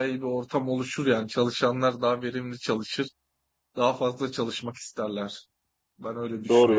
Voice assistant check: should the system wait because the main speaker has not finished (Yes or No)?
No